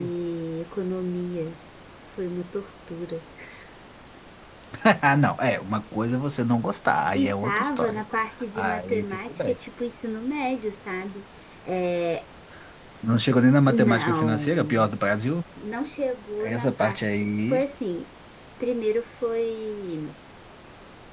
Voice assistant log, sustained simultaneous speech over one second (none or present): present